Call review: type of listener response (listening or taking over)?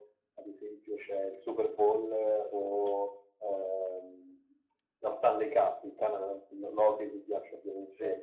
listening